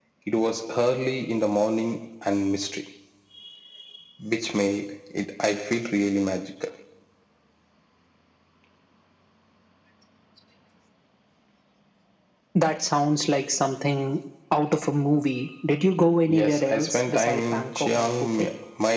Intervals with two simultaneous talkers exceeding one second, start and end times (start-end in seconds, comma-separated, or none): 16.3-18.5